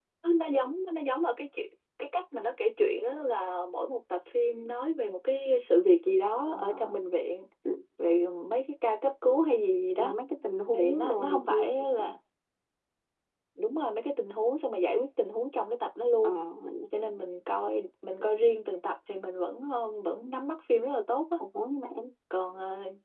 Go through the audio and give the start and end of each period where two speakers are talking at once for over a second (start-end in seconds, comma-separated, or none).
10.7-12.0